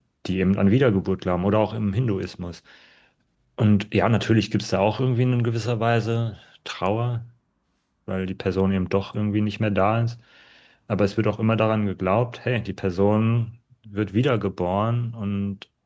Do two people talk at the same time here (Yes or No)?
No